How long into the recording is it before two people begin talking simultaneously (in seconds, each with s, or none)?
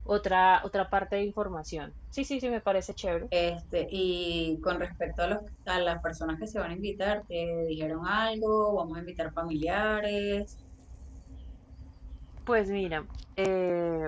none